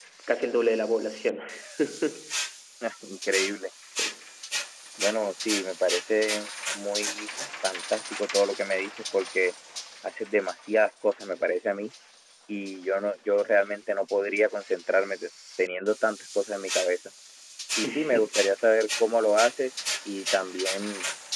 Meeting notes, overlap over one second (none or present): none